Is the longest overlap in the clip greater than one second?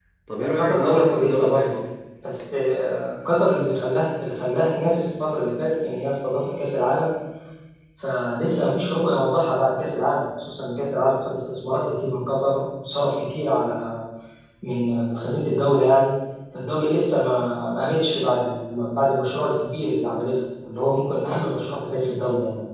Yes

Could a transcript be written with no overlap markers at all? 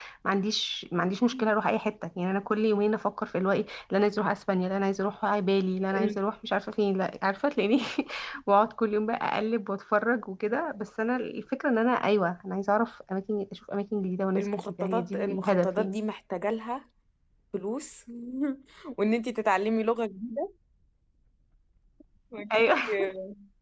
No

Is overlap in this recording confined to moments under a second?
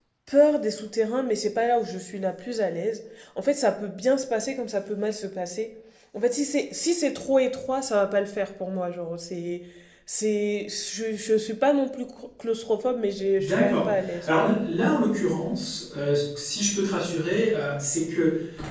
No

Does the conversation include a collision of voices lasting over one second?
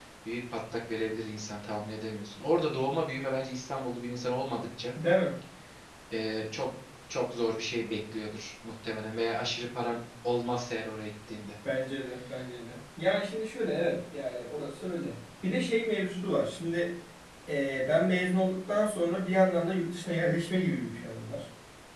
No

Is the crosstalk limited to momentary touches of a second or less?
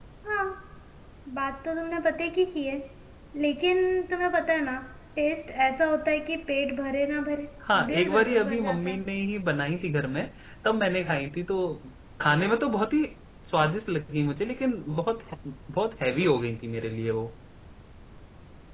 No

